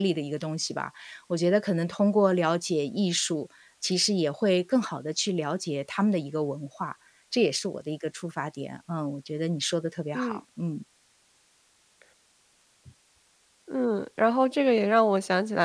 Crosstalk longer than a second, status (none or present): none